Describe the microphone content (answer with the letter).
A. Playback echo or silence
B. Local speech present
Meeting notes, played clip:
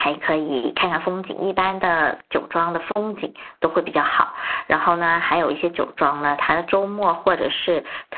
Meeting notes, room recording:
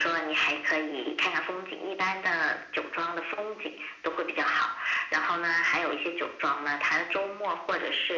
A